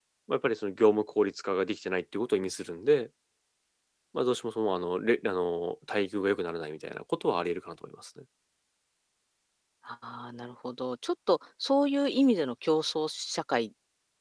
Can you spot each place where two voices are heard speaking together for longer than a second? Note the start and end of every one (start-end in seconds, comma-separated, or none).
none